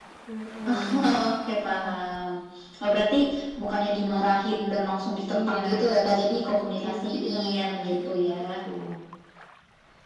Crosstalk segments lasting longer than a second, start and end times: 5.3-8.4

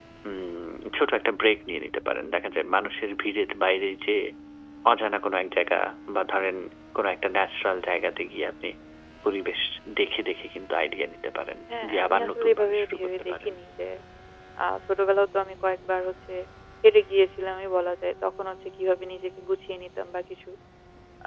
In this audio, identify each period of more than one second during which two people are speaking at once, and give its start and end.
11.8-13.5

